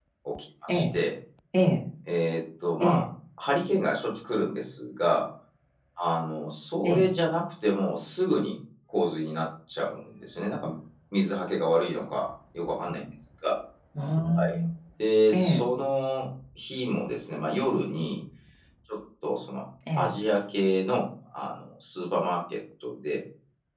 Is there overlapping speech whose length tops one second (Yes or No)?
No